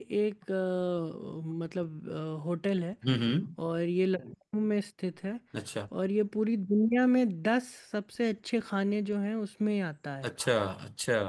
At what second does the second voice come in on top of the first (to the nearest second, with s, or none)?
none